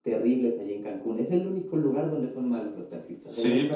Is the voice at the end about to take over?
Yes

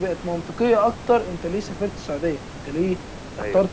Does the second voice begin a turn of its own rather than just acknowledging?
No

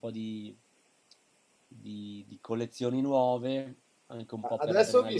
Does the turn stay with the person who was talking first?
No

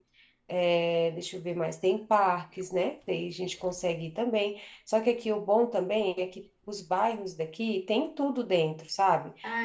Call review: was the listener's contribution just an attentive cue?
No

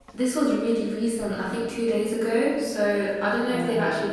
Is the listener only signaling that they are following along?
Yes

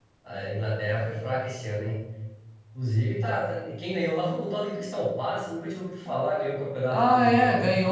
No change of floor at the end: No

